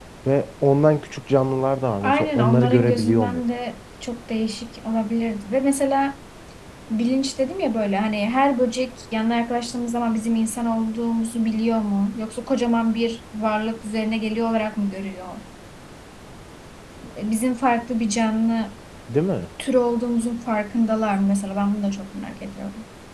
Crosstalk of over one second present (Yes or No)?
Yes